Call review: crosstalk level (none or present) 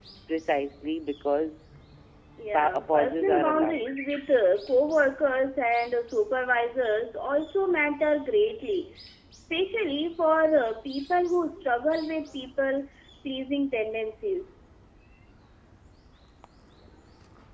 present